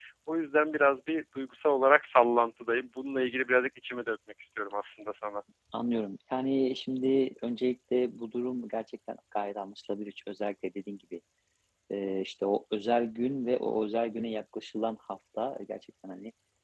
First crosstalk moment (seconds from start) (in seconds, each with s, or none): none